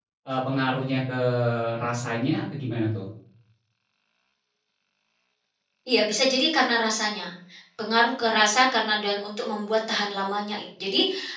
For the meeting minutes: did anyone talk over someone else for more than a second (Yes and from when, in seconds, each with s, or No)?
No